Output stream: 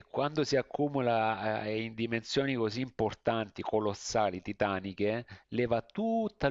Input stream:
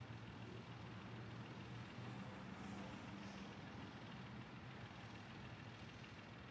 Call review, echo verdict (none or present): none